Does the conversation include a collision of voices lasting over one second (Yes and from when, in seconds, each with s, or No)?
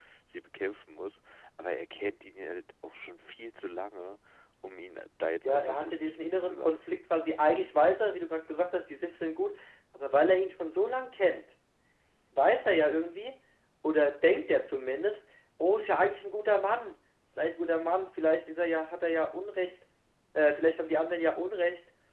Yes, from 5.4 s